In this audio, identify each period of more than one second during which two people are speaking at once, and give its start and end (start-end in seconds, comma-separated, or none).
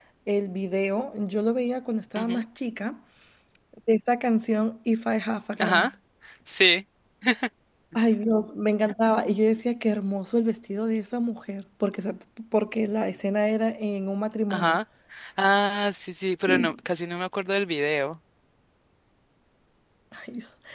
none